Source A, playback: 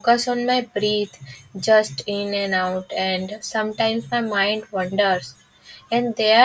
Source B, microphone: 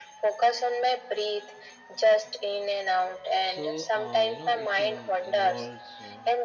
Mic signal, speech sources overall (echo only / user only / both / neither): both